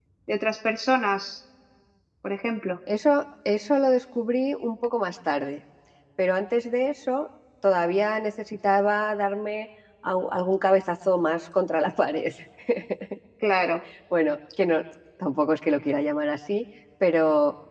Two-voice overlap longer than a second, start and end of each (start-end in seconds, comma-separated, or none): none